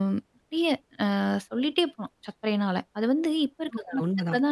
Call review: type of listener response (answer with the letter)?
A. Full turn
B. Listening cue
A